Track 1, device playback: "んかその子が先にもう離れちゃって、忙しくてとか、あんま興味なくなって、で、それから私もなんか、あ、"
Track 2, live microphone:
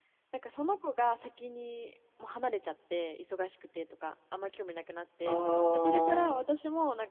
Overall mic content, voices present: both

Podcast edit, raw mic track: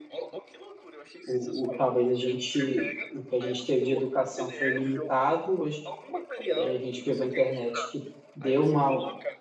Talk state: both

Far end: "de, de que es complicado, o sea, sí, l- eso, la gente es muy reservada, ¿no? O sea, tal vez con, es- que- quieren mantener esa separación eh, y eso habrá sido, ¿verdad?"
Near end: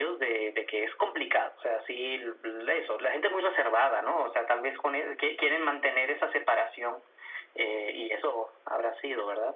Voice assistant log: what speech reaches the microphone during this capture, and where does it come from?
echo only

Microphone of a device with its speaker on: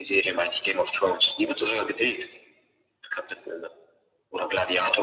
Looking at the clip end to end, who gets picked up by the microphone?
echo only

